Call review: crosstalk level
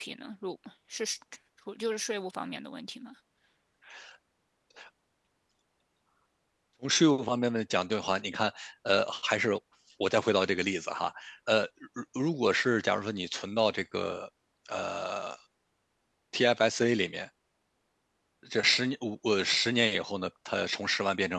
none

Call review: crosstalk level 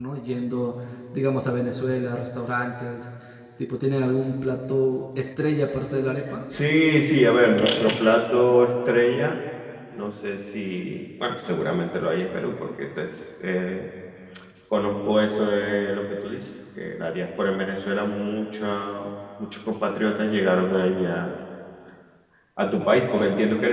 none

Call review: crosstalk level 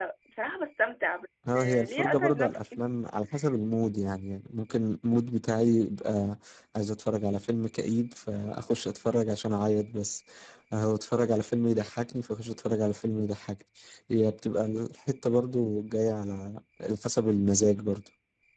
present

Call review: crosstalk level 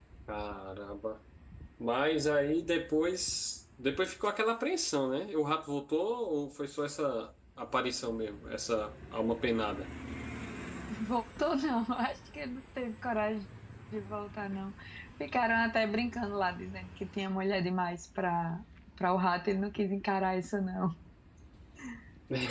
none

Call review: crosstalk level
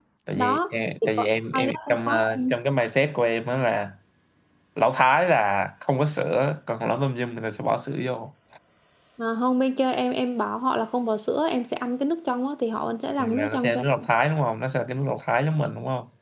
present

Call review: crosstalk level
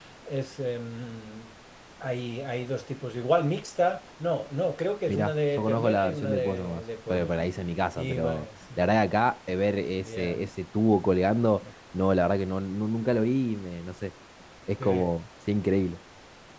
present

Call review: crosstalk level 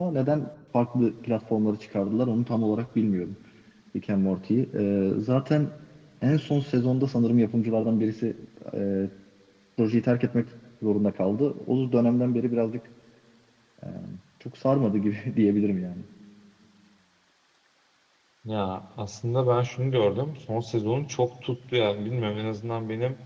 none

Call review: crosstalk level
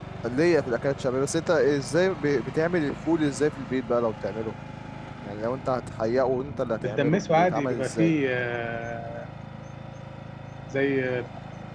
present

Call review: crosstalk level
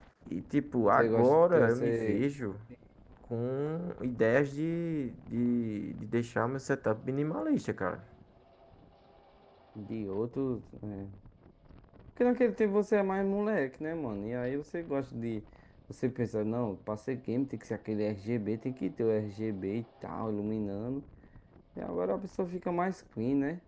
present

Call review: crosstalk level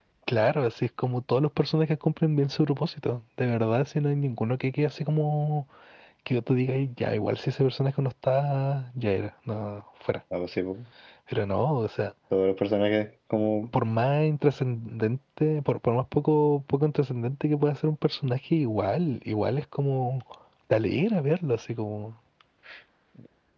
none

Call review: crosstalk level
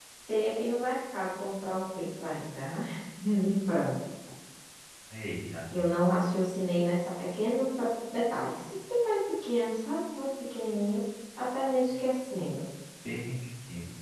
none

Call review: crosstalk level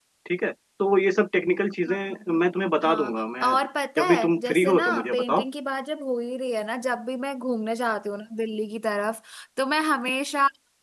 present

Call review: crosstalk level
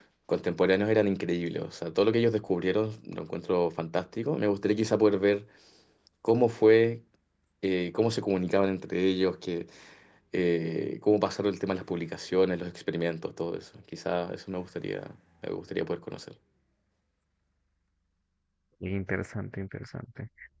none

